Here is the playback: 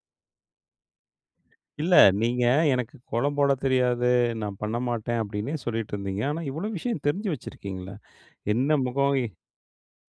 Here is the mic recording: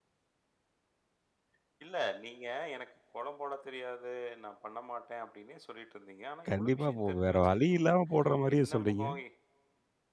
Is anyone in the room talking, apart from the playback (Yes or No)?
Yes